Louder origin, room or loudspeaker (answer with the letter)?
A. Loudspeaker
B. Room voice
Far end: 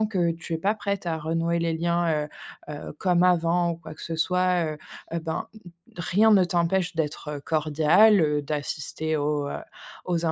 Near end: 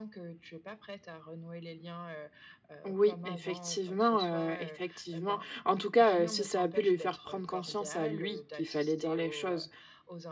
B